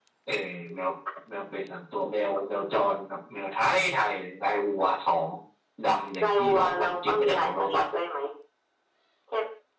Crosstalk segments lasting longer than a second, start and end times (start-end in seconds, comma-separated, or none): 6.2-7.8